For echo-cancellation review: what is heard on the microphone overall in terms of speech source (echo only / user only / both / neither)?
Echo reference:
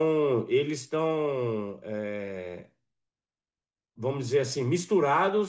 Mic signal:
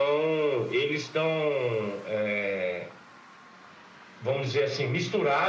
echo only